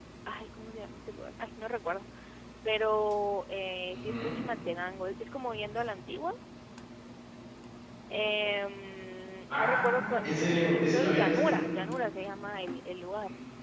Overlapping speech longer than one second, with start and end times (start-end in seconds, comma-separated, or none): 9.5-11.6